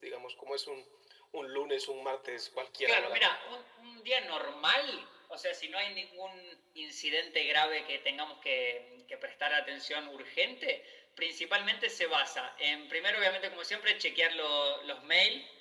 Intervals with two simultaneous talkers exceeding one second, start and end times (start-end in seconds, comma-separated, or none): none